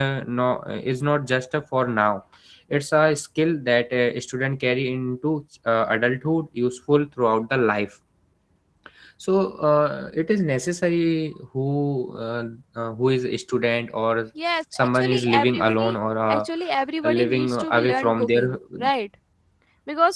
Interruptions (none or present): present